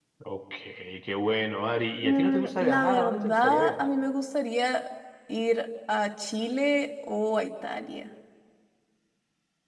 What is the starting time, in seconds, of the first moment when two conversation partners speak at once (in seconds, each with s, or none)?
2.0 s